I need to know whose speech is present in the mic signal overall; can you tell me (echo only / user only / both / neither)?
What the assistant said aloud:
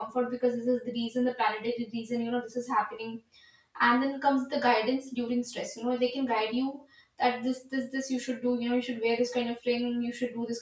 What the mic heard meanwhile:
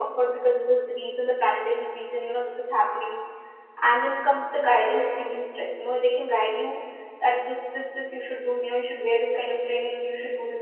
echo only